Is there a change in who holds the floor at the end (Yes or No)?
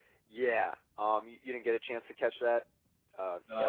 Yes